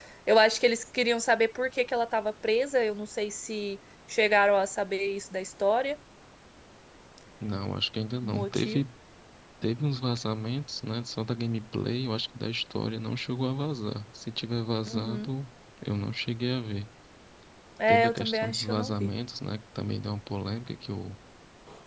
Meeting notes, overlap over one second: present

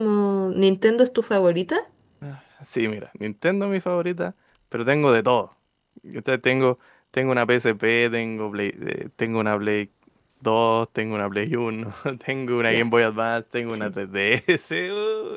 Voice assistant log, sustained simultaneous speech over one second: none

